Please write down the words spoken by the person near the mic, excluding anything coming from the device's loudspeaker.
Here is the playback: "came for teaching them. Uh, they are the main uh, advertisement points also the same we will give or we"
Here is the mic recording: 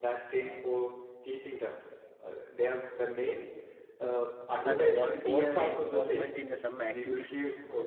and a volunteer involvement in some activities

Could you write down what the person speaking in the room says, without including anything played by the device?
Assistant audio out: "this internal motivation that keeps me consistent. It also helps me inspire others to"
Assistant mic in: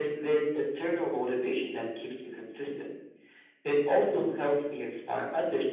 none

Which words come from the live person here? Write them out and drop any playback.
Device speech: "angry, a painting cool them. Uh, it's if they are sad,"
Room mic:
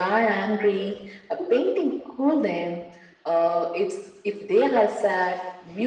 none

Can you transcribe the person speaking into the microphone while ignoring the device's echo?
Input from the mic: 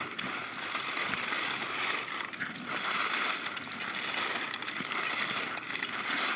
none

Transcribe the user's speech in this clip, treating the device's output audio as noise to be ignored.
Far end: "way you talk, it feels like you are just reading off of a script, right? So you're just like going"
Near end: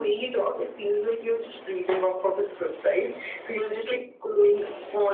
none

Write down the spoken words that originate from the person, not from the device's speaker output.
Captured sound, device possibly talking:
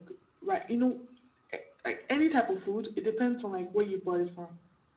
none

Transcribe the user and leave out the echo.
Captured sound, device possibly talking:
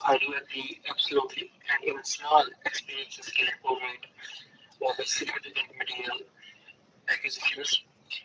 none

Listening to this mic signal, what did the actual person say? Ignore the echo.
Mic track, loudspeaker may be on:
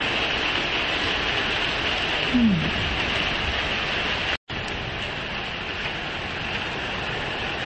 Hmm.

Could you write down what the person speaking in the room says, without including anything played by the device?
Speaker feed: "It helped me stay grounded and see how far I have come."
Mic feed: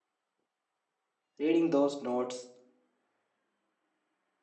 Reading those notes

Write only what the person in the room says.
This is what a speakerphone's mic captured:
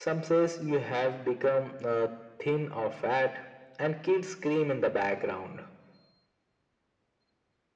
none

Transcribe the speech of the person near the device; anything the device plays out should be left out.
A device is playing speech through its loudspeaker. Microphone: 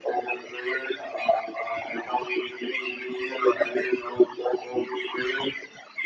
none

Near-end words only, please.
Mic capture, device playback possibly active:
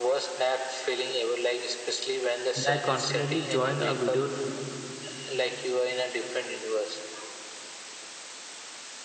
When I confidently joined a video

